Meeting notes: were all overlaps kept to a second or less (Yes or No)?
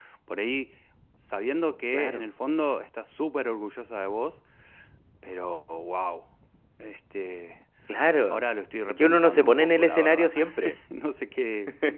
No